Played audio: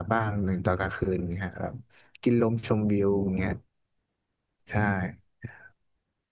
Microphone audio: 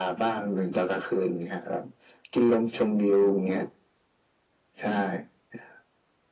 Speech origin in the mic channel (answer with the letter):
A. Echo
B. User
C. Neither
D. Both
A